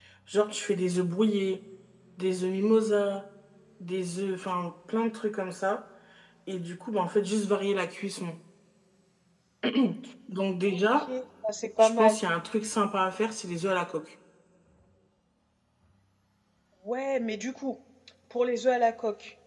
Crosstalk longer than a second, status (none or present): none